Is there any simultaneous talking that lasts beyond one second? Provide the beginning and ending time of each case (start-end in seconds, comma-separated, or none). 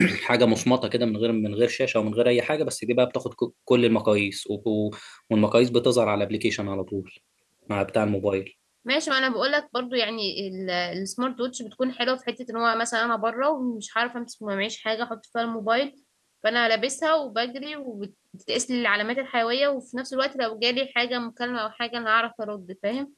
none